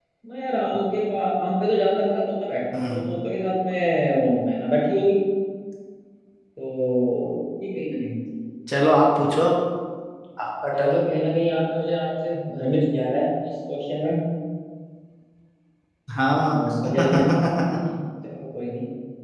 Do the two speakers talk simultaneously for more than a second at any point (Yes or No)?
No